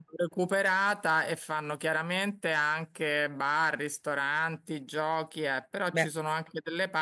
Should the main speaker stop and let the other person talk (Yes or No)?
No